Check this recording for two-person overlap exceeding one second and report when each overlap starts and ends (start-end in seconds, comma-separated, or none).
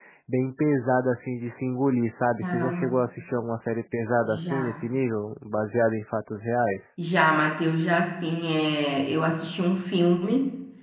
none